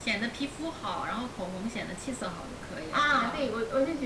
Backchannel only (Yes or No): No